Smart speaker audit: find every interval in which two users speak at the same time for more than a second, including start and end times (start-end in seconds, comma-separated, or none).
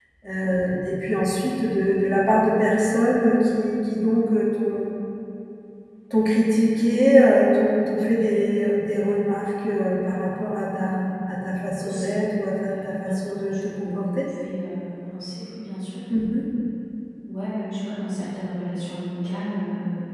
12.7-14.2